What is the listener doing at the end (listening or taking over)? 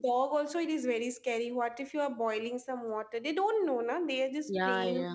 taking over